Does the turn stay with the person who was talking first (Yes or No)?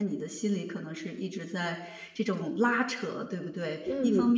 Yes